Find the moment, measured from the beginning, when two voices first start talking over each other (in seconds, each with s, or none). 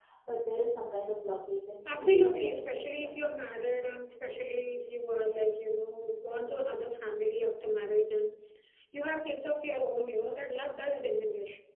1.9 s